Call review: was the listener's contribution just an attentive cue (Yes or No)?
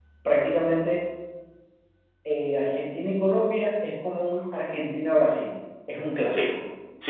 No